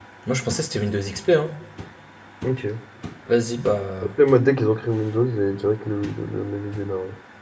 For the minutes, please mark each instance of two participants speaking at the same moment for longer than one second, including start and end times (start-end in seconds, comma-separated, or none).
none